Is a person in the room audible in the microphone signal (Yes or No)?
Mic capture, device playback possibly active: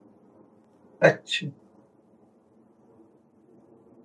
Yes